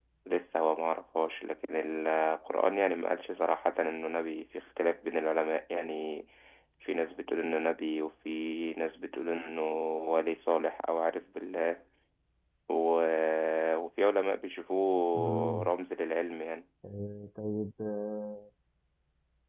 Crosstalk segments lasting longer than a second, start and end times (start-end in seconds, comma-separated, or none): none